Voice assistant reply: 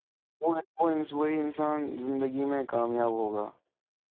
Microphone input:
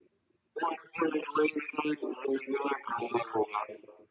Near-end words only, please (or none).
none